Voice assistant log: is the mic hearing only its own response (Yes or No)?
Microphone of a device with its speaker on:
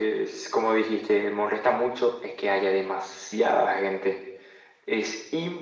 Yes